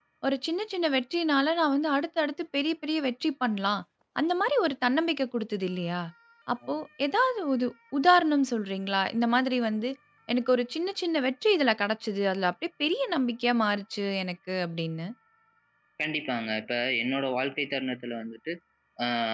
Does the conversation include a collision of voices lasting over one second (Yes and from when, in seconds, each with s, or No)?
No